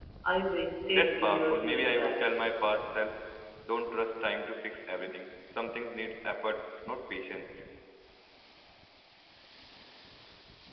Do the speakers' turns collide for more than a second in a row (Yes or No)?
Yes